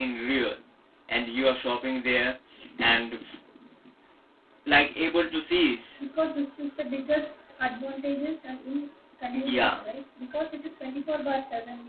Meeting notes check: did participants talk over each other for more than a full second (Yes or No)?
No